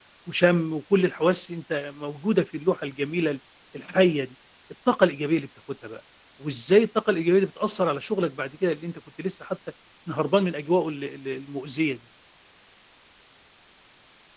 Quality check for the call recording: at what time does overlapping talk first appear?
none

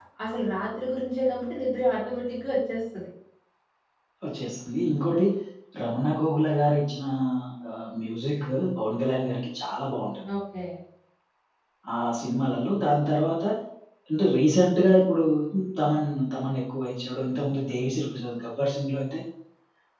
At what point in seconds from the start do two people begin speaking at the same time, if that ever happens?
none

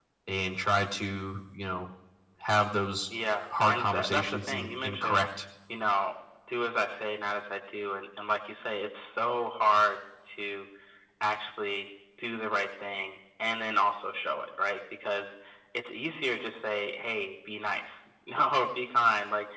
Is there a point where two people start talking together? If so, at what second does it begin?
4 s

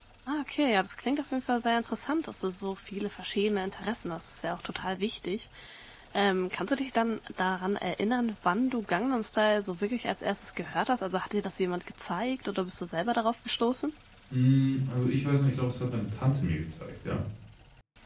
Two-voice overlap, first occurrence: none

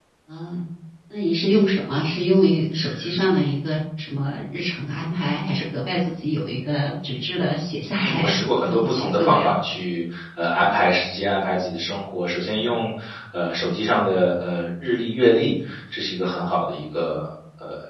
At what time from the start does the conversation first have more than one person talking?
8 s

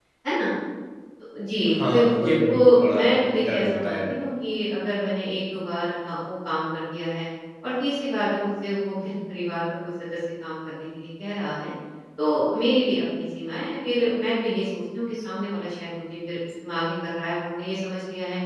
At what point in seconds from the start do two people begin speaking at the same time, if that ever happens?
2 s

